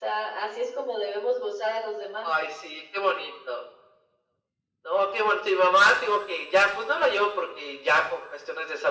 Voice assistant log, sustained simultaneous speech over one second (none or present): none